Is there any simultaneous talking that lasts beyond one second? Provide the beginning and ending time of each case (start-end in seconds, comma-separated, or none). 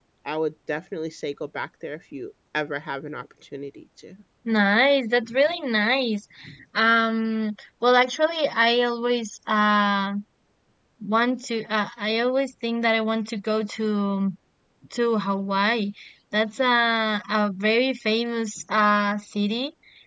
none